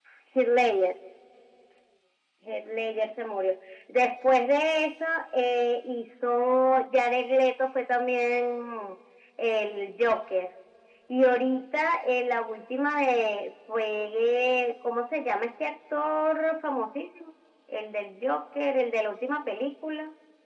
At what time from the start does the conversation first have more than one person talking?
none

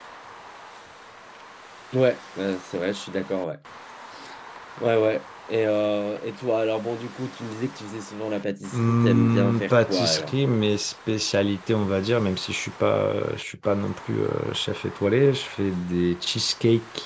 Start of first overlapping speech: 8.7 s

